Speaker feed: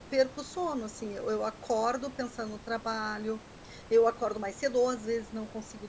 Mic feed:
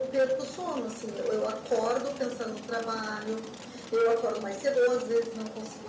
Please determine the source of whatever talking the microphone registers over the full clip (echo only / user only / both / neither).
echo only